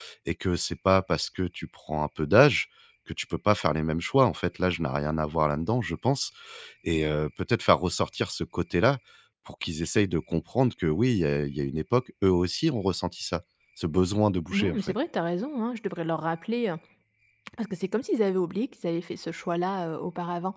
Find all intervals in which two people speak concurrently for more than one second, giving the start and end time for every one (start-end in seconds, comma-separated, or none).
none